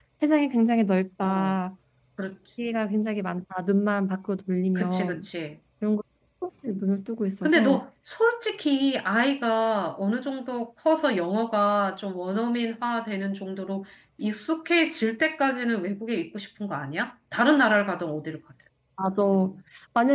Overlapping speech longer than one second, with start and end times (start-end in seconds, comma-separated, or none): none